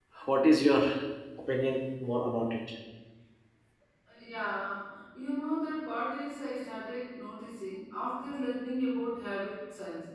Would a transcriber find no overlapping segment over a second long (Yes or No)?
Yes